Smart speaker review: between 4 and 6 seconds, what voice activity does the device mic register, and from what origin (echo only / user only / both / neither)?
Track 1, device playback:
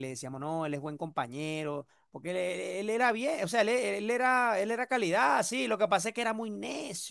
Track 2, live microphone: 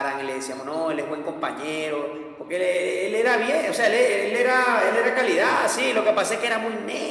echo only